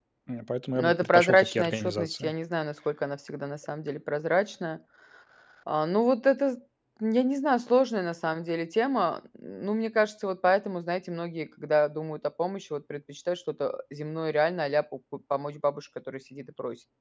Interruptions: present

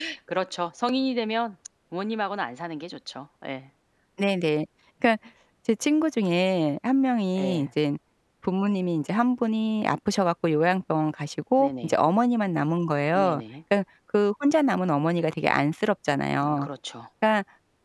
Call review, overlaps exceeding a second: none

